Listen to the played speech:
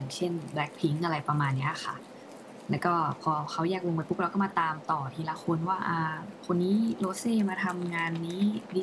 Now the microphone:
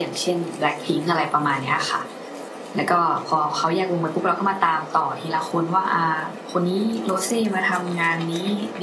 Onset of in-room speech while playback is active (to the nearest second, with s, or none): none